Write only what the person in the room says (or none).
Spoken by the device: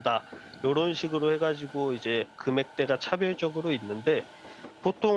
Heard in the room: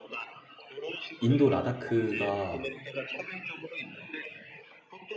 인도 라다크가